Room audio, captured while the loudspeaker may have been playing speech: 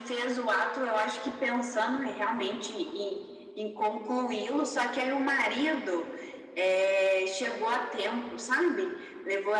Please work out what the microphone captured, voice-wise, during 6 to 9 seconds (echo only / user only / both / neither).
echo only